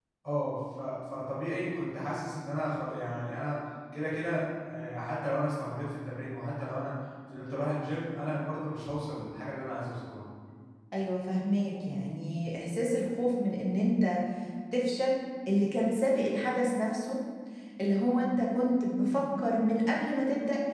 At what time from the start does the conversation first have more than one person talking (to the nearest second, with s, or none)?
none